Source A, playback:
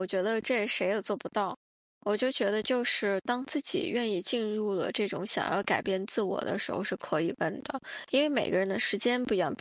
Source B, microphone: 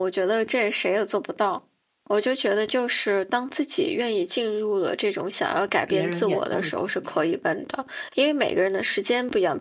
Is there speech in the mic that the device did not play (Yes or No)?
Yes